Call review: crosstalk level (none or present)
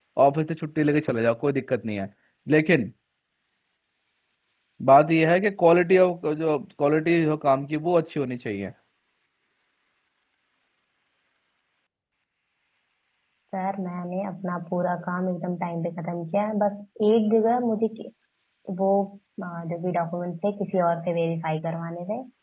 none